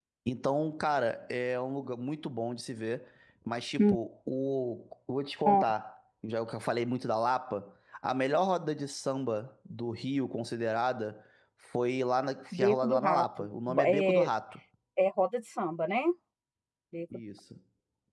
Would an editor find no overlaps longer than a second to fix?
No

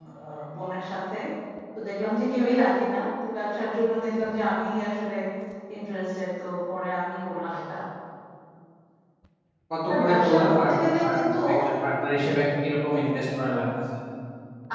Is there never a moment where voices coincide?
No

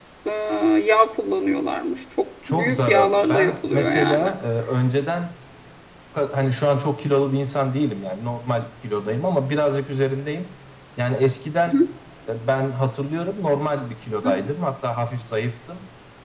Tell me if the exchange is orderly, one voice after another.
No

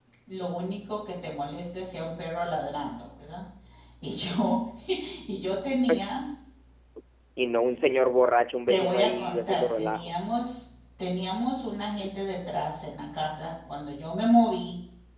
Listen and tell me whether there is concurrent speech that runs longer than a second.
Yes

